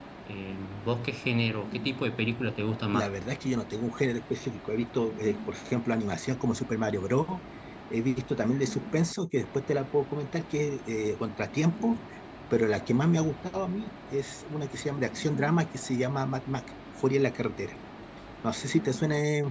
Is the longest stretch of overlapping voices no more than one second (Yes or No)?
Yes